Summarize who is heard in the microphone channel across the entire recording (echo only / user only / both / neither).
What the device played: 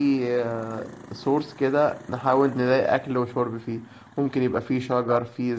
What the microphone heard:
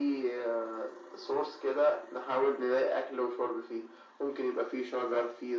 echo only